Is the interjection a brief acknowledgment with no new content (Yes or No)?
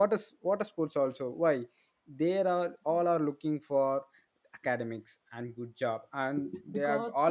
Yes